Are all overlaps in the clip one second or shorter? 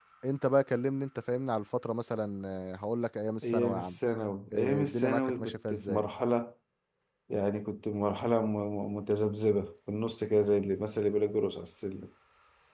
No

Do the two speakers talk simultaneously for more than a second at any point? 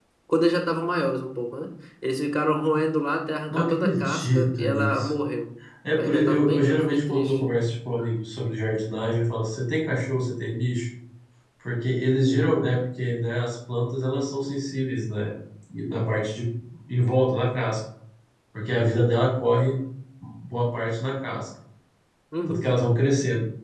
Yes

